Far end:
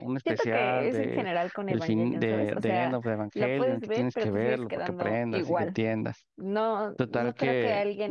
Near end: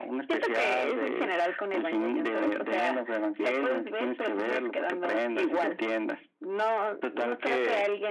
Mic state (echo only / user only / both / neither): echo only